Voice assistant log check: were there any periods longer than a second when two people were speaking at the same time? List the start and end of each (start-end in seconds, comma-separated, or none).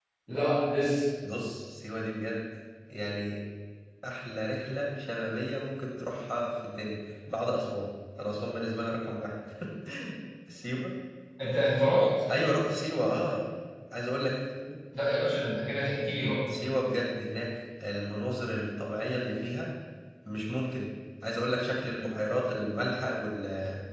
none